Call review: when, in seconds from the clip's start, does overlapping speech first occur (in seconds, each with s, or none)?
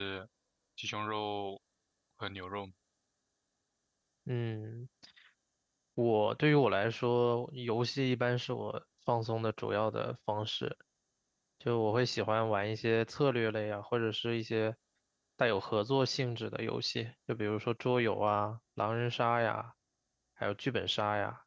none